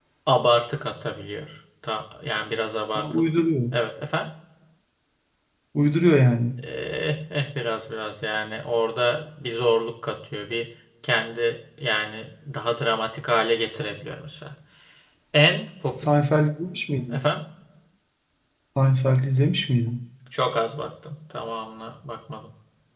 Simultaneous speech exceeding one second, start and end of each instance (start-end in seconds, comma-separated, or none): none